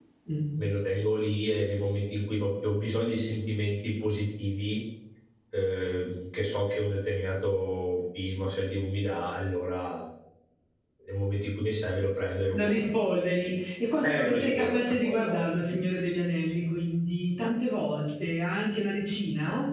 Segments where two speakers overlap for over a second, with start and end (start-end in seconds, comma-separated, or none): 14.0-15.3